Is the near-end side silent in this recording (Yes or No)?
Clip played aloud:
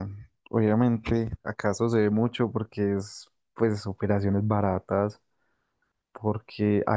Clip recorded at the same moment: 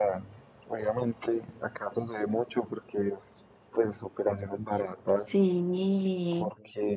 No